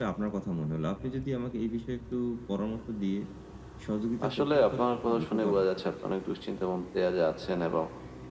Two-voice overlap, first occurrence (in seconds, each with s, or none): 4.3 s